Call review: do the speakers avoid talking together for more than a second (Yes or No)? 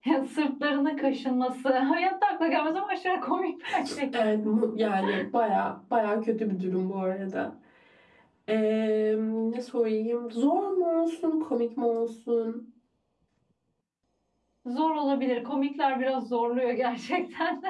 Yes